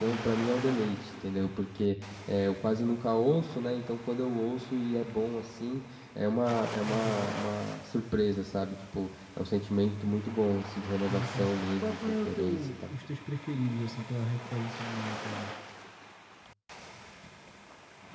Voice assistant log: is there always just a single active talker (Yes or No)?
No